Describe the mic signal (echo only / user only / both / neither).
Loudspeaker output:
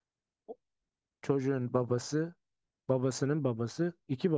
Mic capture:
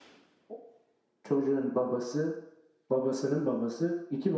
echo only